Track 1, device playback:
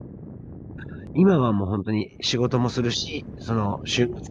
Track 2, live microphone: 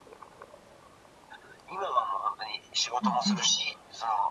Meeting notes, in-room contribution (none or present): present